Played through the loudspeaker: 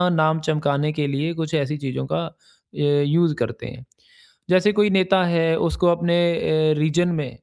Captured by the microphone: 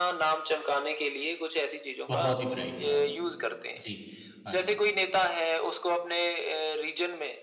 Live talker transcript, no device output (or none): बहुत ही ब्राइट हाँ। जी। हाँ जी।